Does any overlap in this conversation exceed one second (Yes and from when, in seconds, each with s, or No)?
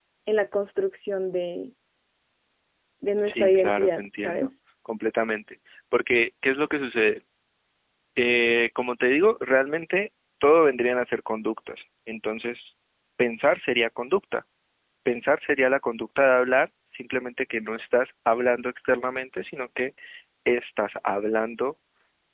Yes, from 3.2 s